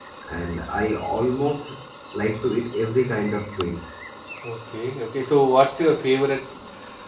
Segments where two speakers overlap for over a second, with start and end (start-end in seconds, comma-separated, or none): none